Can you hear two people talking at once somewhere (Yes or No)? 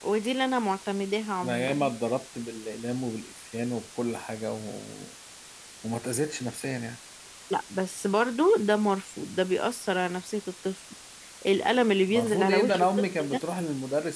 Yes